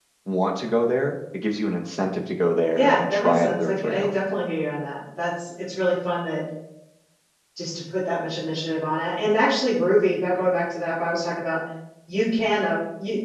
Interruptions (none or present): present